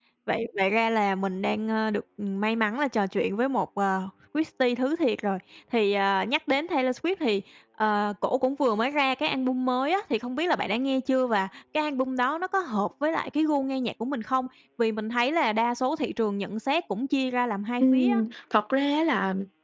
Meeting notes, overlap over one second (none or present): none